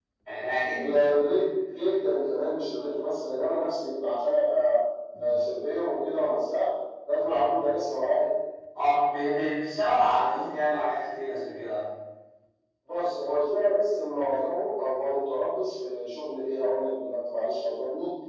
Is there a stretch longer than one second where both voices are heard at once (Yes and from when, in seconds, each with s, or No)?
No